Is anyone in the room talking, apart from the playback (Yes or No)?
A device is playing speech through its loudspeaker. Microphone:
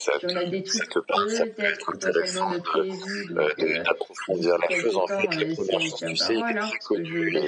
Yes